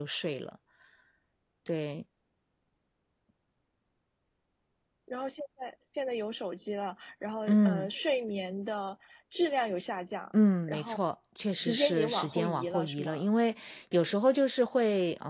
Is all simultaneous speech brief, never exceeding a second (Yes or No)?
No